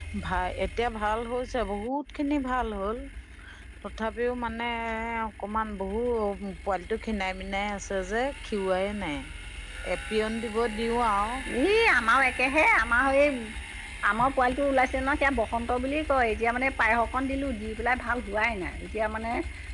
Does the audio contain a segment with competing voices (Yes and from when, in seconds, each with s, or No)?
No